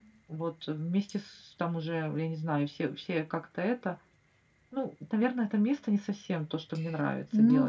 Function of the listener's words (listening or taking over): taking over